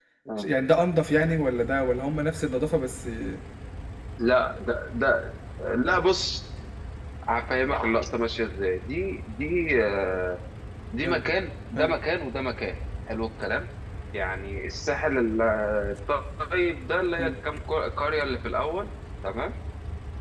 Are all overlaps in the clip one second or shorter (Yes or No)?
Yes